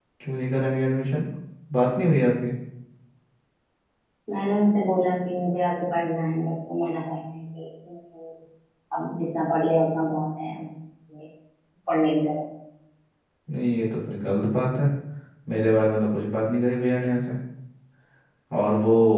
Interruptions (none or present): none